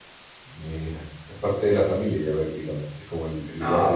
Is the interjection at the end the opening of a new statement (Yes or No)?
Yes